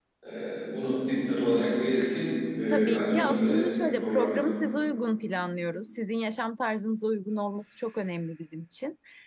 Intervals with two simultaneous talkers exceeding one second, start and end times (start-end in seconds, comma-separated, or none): 2.7-4.4